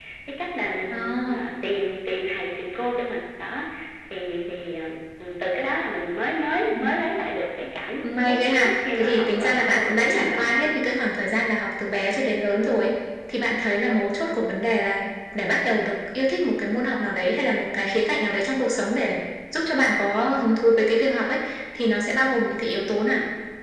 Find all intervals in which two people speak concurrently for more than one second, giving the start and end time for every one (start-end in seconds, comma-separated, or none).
8.3-10.8